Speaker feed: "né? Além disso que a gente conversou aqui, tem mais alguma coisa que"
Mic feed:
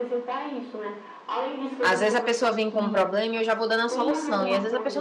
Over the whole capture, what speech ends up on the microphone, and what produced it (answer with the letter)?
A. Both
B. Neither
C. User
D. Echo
A